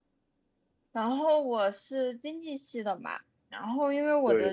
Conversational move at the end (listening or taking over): listening